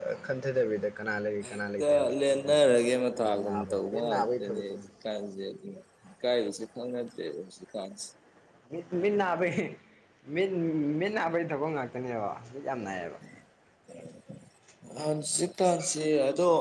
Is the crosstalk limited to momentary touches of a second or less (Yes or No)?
No